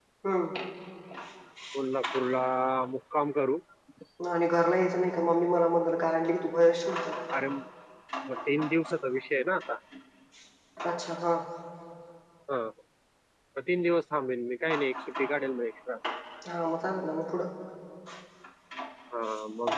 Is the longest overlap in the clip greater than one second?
No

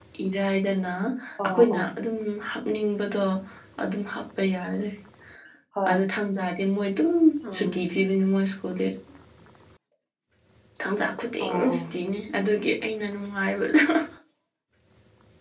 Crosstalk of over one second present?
No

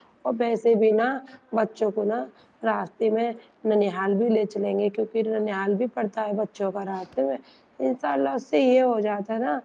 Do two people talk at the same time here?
No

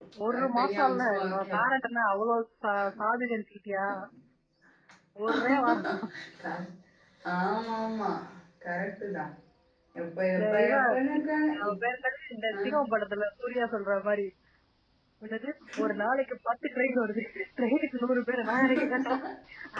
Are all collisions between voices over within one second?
No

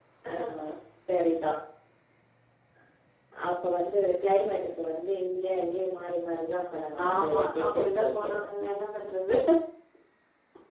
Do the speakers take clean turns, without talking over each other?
No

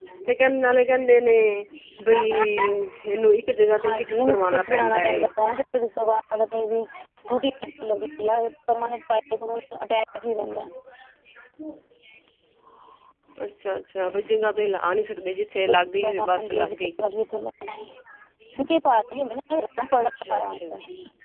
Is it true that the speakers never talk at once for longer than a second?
No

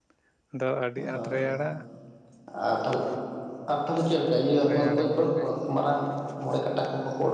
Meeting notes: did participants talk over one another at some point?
Yes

